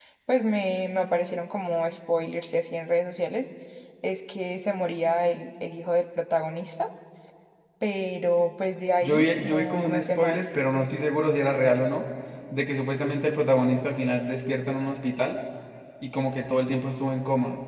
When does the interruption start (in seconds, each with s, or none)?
9.0 s